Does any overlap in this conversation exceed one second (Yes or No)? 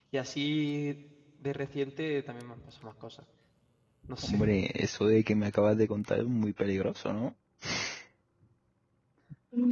No